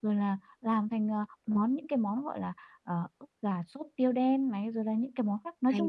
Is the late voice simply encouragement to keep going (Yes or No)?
Yes